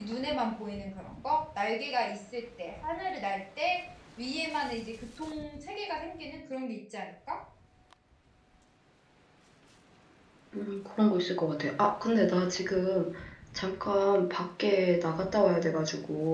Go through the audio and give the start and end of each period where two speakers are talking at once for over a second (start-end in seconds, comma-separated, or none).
none